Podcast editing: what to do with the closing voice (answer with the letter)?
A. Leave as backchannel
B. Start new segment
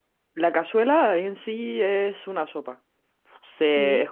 A